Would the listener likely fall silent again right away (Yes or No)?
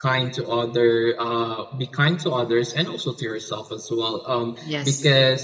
Yes